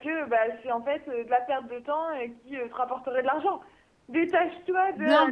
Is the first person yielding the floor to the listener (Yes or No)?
No